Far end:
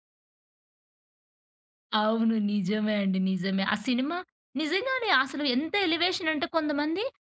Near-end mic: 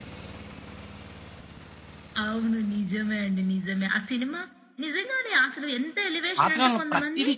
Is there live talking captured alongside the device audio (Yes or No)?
Yes